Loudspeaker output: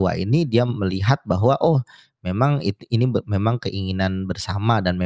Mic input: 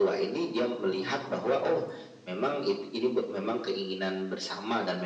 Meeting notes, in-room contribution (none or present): present